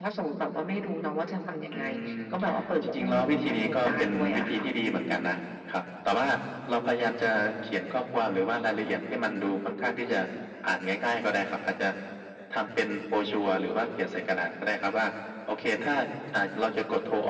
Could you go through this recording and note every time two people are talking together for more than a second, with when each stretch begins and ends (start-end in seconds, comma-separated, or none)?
2.8-4.6